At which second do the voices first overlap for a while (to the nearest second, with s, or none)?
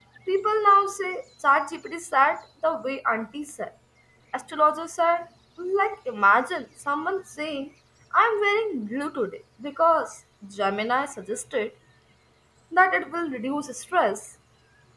none